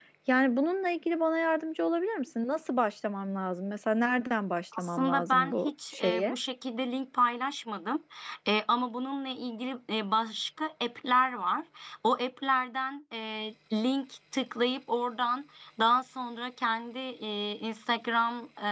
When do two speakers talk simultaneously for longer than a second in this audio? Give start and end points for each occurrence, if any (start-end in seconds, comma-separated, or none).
4.8-6.3